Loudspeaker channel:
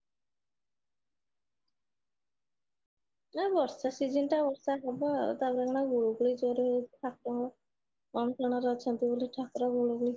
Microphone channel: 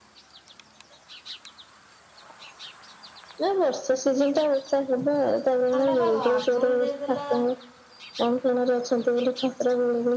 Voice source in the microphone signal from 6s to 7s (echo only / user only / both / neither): both